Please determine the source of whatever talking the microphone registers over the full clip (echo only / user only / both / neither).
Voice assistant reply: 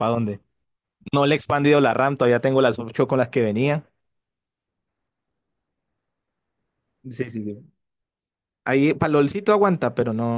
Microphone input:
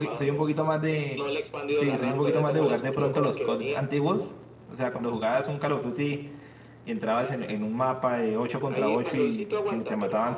both